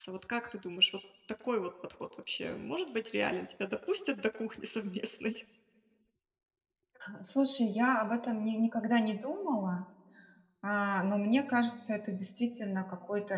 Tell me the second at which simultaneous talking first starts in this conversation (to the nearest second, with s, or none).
none